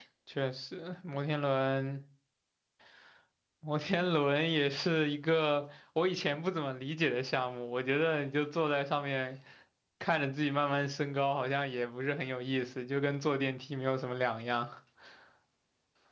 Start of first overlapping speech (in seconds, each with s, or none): none